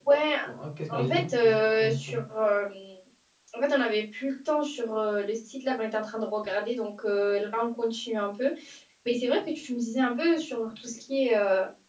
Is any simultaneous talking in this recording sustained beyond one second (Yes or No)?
Yes